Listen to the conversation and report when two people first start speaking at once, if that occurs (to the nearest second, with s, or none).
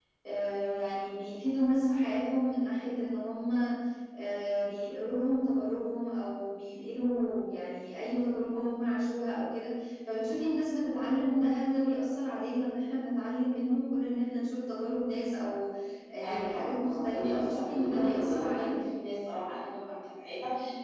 16 s